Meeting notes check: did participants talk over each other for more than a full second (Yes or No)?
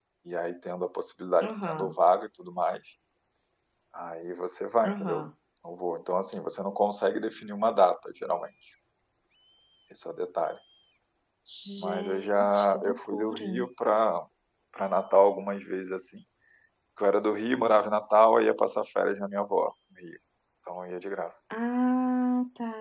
Yes